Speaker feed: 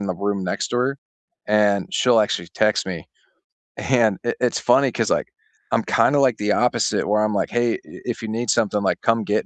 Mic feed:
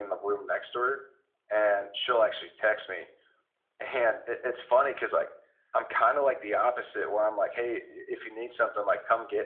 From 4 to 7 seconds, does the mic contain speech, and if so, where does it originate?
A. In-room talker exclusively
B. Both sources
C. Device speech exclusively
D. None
C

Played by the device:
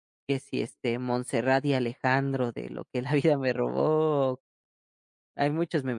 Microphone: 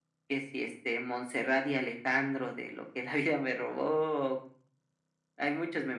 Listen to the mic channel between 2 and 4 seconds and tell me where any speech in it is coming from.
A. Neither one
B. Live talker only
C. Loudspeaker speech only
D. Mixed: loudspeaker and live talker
C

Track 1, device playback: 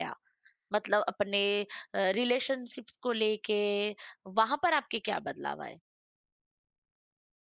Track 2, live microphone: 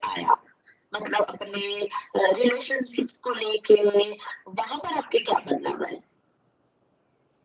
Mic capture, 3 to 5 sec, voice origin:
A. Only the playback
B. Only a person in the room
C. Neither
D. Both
A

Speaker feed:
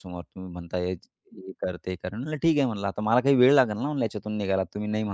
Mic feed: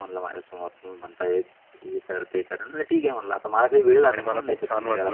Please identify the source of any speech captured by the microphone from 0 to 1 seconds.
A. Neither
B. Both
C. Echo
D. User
C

